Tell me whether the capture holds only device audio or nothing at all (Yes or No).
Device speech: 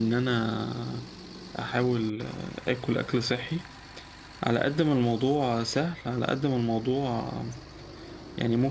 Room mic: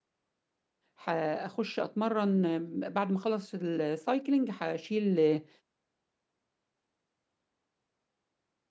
No